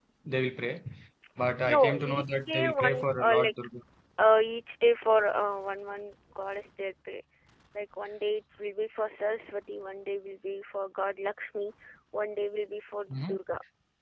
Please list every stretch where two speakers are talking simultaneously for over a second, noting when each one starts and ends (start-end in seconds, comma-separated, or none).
1.6-3.5